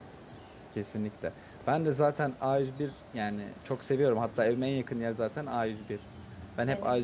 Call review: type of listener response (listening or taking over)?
listening